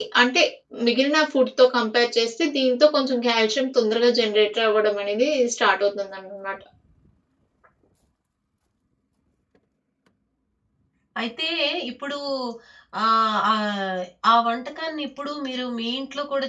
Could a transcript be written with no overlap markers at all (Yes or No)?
Yes